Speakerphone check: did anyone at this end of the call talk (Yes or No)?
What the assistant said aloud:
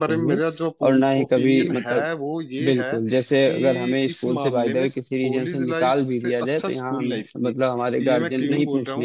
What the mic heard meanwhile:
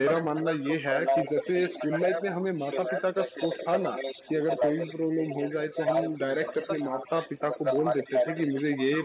Yes